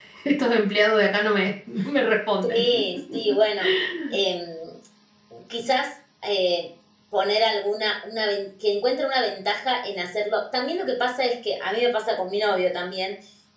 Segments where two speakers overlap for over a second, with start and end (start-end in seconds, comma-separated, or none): none